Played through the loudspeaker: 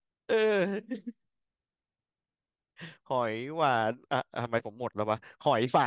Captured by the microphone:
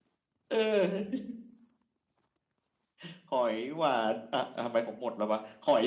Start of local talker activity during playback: none

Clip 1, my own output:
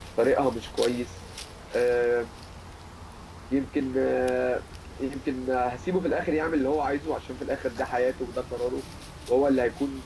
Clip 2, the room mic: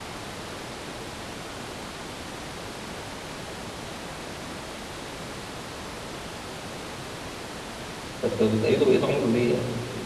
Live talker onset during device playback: 8.2 s

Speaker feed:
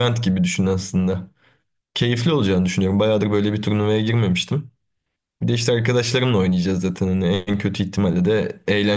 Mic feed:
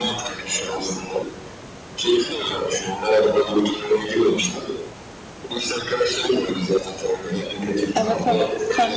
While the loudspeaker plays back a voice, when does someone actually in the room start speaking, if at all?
7.9 s

